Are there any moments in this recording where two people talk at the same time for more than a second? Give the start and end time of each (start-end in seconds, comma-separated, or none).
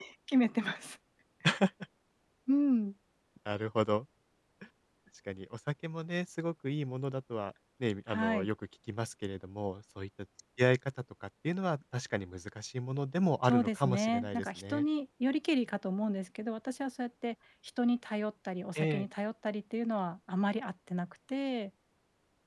13.4-14.8